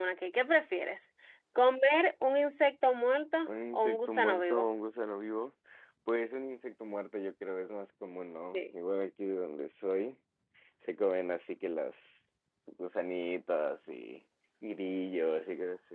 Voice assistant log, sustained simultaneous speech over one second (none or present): present